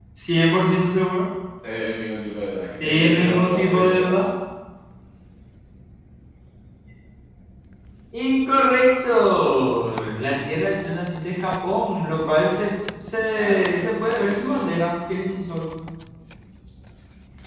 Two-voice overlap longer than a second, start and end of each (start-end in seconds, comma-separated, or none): 2.8-4.2, 13.3-14.7